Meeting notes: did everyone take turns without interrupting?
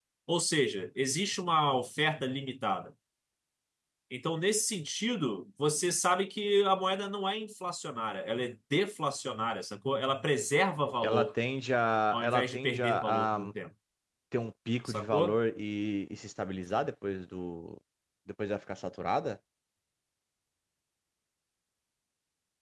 No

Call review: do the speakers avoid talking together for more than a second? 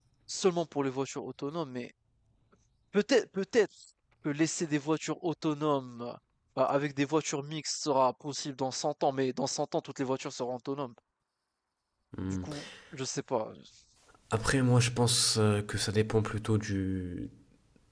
Yes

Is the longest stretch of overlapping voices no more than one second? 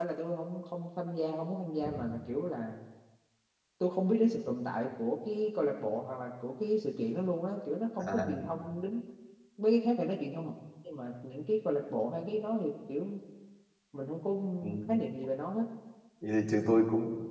Yes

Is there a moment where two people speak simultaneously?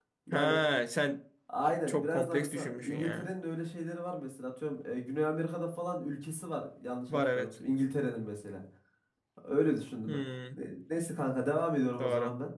Yes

